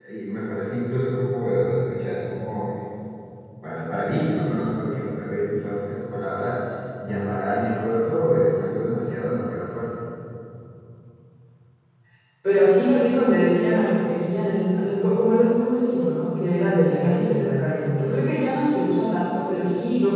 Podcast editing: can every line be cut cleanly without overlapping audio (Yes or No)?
Yes